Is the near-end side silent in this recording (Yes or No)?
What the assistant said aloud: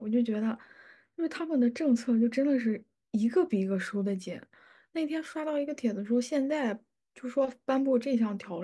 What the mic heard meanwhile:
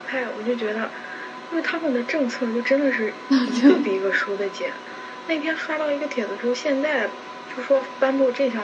No